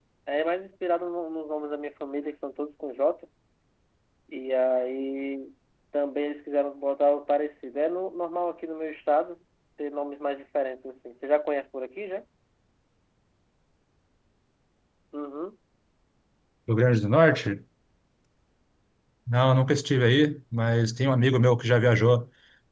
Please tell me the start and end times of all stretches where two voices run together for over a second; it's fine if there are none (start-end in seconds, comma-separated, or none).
none